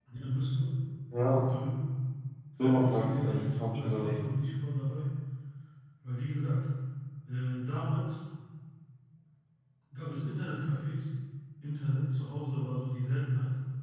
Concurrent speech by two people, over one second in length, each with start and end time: 2.6-4.2

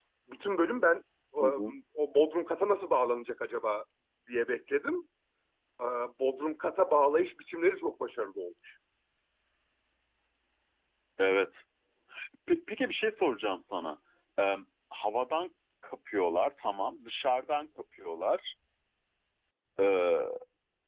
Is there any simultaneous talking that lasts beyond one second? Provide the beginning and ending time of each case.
none

